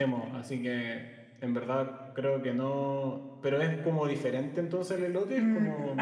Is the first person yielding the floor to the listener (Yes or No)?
Yes